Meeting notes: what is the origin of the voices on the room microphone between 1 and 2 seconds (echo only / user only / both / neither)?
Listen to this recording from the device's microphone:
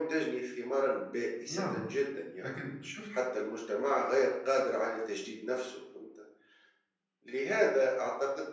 both